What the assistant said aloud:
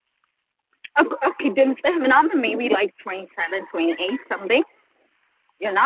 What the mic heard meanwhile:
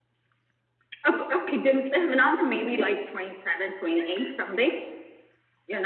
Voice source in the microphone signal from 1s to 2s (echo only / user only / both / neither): echo only